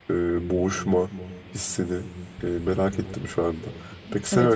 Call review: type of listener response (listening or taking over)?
taking over